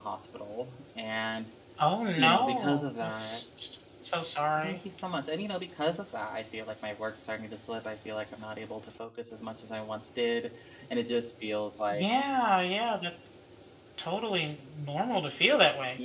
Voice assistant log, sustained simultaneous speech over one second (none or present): present